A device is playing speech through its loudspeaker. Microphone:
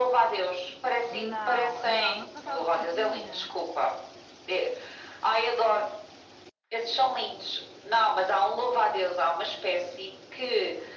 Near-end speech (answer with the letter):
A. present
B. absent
A